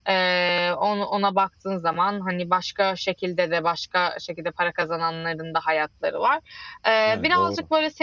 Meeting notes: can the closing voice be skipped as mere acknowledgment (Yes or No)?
Yes